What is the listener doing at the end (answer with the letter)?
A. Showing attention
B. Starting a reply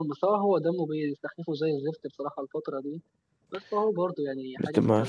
B